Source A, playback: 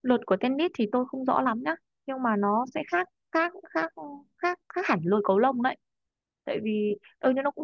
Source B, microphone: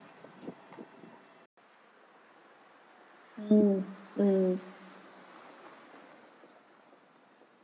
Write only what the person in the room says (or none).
ừm, ừm,